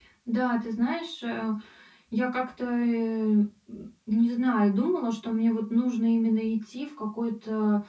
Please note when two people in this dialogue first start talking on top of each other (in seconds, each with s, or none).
none